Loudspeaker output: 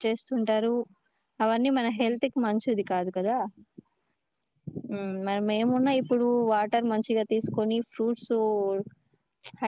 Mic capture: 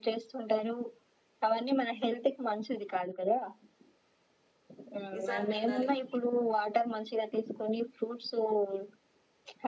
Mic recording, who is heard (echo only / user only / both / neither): both